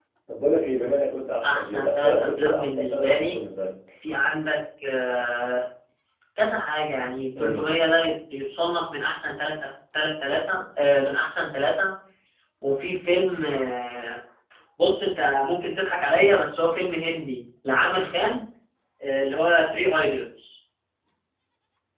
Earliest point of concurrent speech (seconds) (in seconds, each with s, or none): 1.4 s